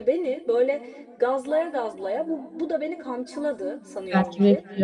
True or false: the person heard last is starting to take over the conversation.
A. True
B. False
A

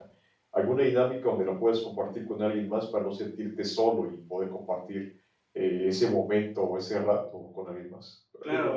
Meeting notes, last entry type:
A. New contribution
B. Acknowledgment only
A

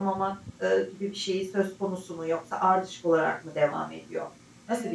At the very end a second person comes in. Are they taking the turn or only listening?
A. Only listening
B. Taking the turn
B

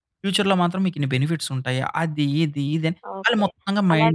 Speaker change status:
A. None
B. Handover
B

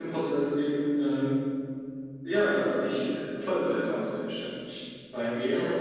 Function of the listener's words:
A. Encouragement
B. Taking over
B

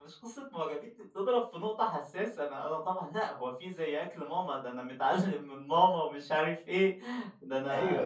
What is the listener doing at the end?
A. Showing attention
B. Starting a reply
B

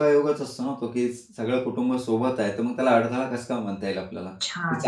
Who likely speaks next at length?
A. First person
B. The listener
B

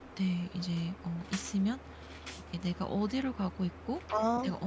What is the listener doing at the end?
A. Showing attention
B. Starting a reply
A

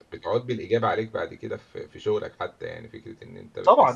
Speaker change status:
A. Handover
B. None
A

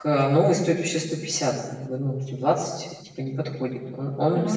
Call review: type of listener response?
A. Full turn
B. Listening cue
B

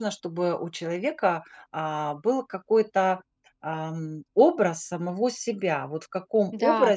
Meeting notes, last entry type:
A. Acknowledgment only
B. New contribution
A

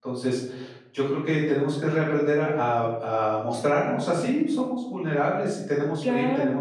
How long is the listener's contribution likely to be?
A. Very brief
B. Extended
A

